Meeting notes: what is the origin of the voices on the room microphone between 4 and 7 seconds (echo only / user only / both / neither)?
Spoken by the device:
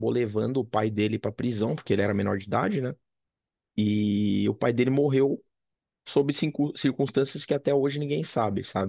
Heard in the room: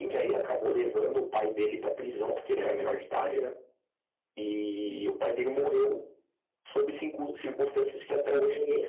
echo only